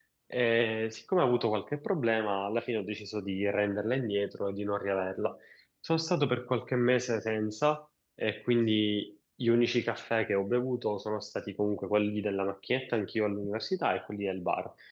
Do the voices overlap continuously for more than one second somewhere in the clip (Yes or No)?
No